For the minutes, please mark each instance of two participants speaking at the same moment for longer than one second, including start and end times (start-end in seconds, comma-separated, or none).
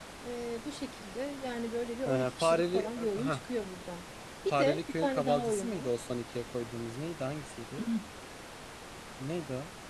2.1-3.4, 4.5-5.9